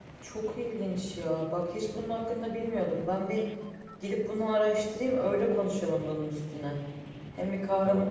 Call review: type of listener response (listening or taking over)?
listening